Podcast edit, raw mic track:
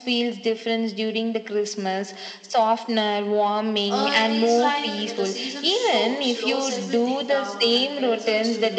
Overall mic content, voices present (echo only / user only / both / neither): both